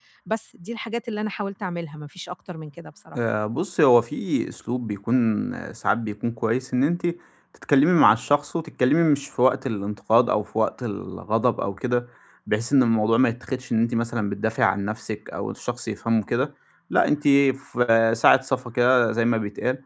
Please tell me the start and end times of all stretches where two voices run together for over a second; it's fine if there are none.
none

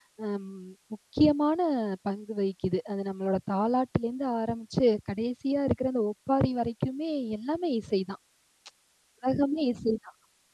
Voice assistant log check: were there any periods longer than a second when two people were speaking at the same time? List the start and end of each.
none

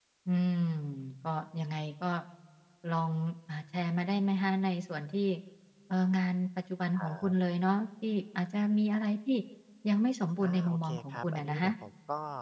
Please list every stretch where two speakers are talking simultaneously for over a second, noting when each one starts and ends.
10.4-11.7

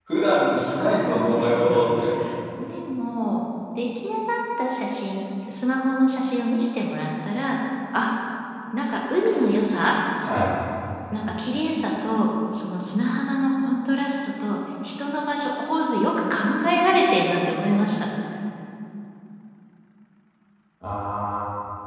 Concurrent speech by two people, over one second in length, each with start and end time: 0.6-1.9

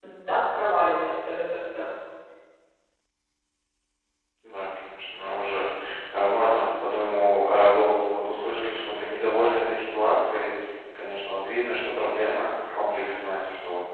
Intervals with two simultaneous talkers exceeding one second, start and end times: none

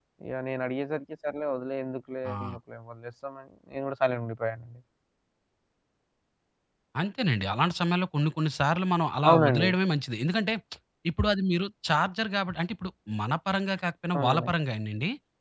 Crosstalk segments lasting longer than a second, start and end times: none

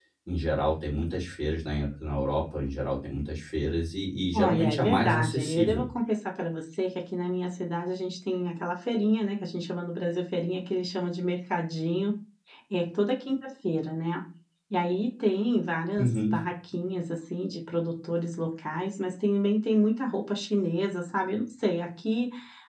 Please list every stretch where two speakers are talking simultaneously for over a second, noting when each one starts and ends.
4.3-5.8

